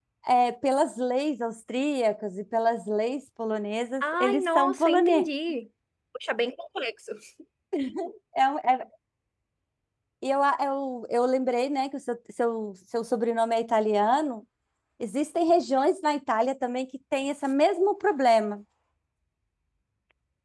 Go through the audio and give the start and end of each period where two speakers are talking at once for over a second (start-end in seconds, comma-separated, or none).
4.0-5.3